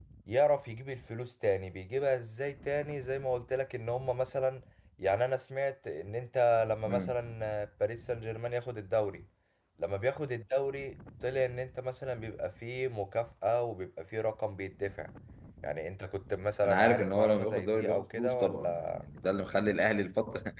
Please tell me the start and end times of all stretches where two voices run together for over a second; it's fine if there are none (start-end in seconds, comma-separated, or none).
16.6-19.0